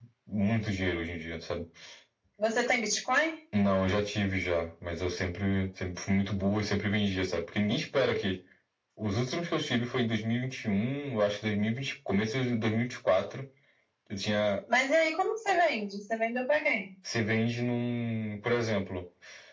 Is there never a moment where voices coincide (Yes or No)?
Yes